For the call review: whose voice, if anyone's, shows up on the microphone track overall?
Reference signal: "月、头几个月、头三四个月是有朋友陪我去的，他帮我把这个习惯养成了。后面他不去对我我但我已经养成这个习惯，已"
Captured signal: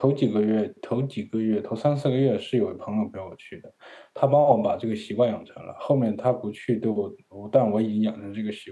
echo only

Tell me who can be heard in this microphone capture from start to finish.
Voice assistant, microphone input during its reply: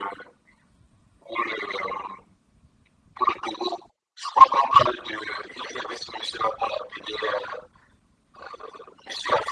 echo only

